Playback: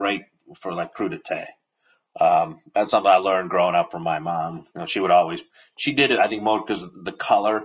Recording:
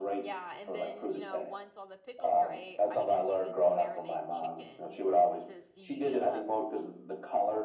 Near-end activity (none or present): present